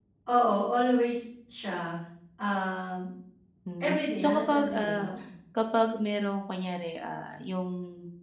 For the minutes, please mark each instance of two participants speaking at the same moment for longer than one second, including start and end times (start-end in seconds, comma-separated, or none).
3.8-5.1